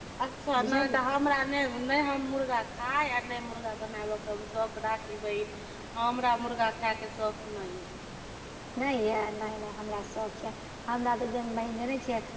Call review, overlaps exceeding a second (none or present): none